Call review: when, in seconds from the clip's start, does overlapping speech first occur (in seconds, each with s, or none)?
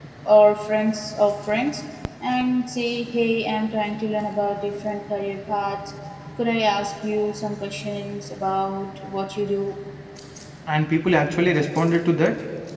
none